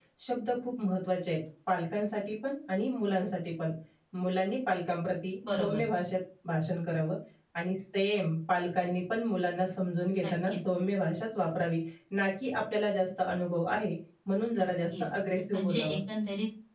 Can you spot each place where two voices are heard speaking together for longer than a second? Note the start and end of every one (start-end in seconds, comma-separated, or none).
none